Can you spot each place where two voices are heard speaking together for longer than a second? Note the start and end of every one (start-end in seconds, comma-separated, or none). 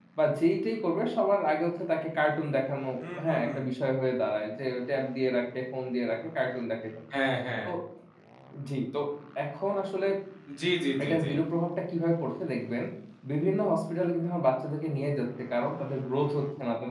none